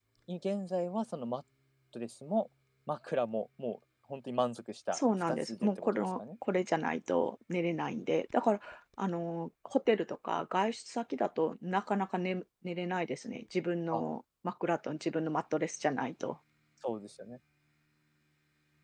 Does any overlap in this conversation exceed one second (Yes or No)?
Yes